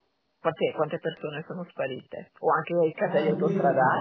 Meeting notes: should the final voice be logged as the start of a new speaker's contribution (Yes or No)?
Yes